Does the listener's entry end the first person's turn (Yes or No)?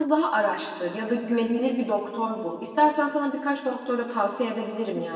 Yes